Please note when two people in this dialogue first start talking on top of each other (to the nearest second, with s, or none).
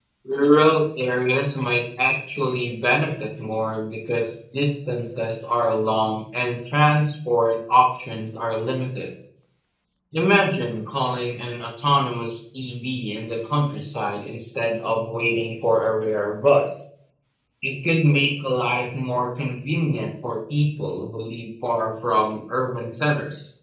none